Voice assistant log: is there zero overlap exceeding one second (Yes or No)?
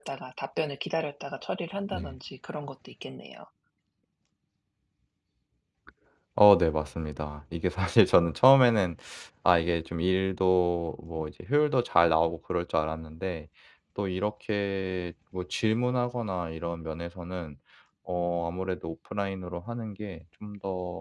Yes